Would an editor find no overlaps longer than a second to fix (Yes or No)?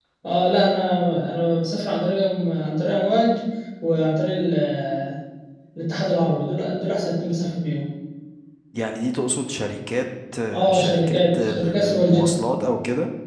No